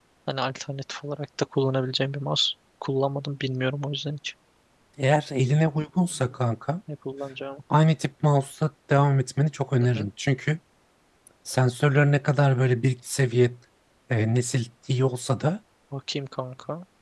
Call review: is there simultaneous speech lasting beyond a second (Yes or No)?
No